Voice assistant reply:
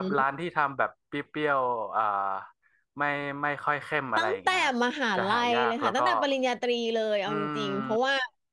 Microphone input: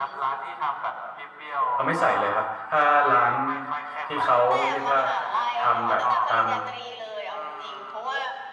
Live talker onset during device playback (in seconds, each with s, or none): 1.7 s